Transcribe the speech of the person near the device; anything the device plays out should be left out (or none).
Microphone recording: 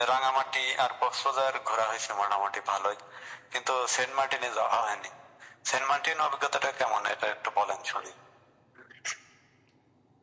none